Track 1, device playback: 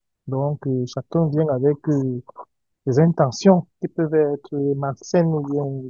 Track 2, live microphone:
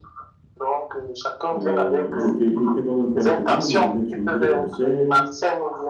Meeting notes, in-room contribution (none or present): present